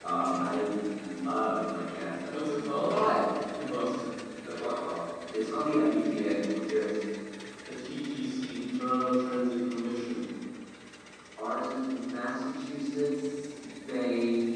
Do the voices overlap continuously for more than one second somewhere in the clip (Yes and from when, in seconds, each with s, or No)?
No